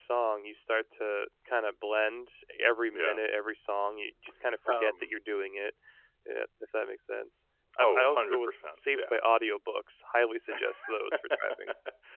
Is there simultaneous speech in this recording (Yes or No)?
Yes